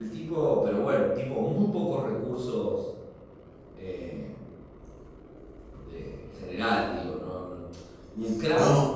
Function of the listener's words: listening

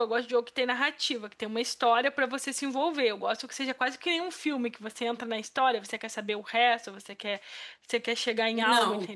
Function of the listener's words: taking over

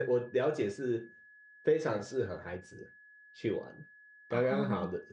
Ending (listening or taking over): listening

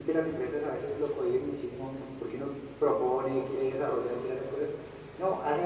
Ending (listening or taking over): listening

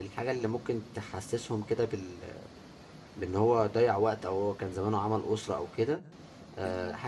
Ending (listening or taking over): listening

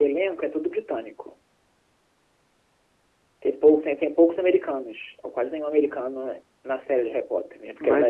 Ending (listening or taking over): taking over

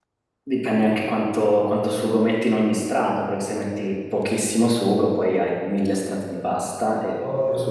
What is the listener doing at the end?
taking over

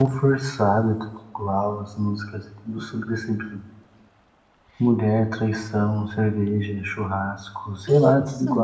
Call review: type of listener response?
listening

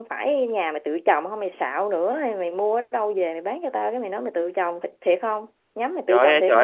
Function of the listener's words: taking over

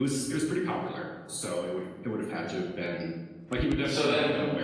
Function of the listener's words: listening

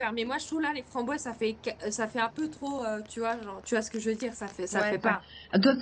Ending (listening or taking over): taking over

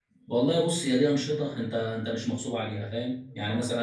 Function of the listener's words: listening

